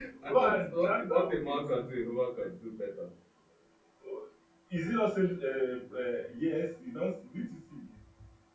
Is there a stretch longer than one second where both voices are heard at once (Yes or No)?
Yes